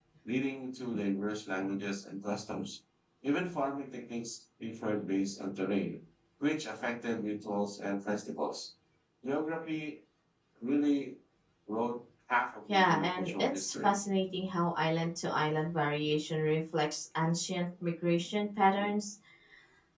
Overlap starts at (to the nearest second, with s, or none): 13 s